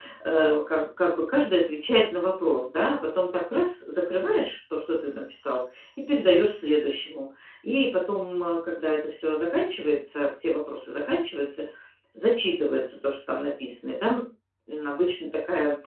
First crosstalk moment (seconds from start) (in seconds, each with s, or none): none